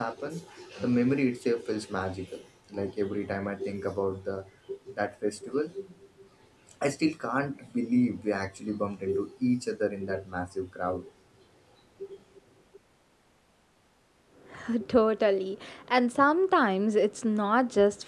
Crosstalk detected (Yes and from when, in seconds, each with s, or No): No